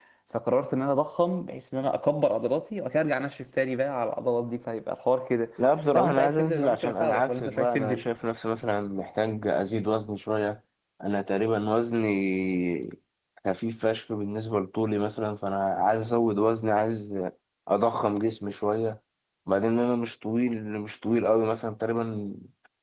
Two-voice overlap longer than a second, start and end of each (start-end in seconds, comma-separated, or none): 5.9-8.0